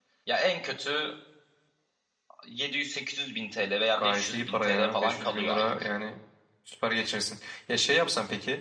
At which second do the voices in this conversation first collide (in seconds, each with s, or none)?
4.0 s